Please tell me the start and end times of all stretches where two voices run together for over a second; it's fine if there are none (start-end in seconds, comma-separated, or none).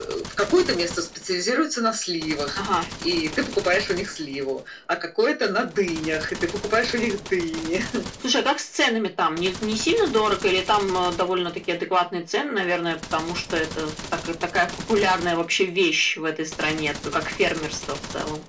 none